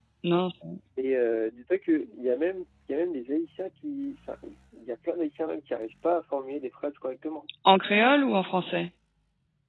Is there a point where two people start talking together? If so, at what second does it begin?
none

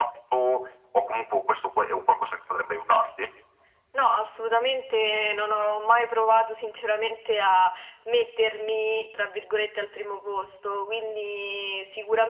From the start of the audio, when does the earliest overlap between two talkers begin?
none

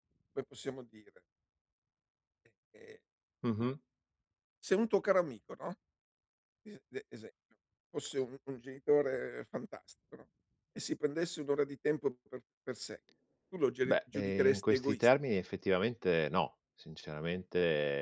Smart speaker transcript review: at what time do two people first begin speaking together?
13.8 s

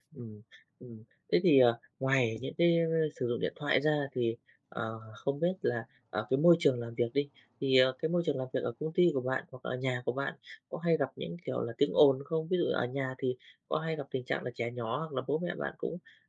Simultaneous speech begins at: none

